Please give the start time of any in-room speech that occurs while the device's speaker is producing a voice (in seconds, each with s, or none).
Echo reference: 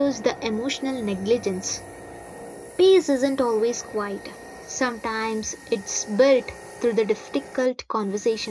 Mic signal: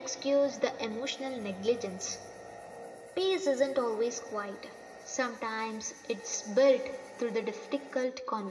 none